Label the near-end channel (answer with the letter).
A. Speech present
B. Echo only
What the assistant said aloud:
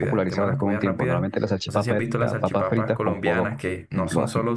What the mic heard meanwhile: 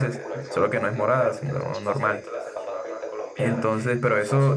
A